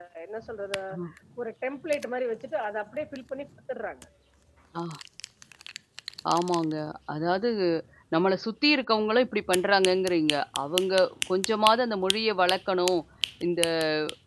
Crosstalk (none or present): none